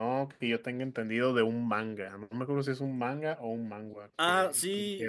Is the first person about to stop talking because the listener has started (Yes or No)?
Yes